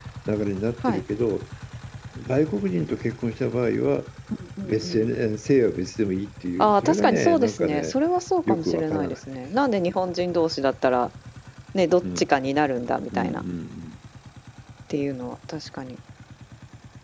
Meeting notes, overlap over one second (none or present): present